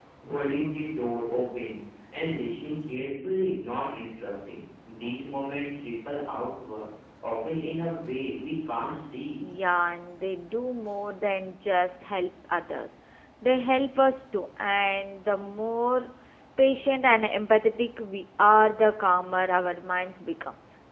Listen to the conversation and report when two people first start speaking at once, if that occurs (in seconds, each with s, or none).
none